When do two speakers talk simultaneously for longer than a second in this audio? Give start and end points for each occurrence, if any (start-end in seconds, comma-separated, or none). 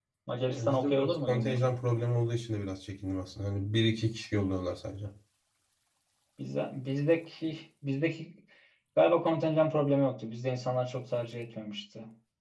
0.6-1.8